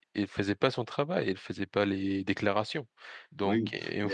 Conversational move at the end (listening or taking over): listening